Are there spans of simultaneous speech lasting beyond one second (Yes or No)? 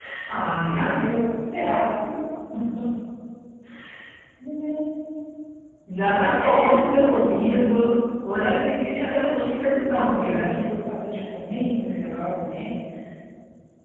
Yes